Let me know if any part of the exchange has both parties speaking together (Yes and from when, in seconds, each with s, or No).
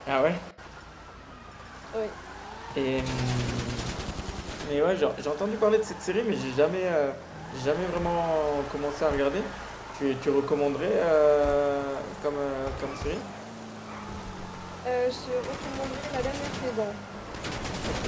No